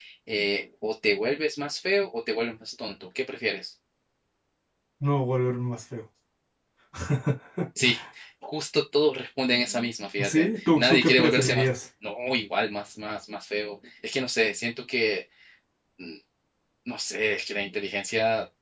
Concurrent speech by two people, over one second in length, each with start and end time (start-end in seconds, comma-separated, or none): 10.2-11.7